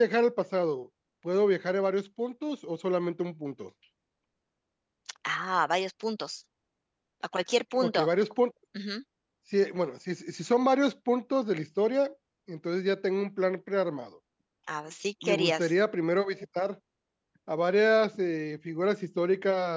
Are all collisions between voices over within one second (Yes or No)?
Yes